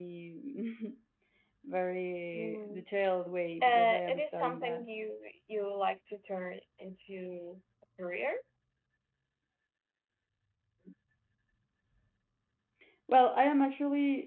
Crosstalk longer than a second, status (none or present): present